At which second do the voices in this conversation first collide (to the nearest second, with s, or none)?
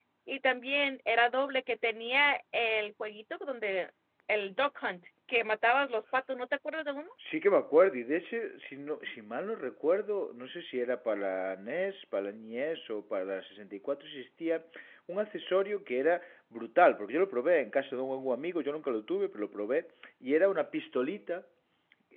none